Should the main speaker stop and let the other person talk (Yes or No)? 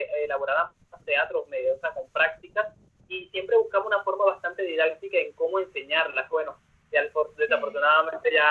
No